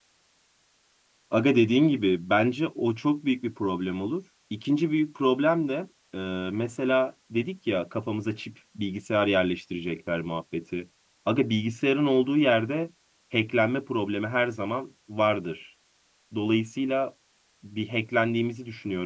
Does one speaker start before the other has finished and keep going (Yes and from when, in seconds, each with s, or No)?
No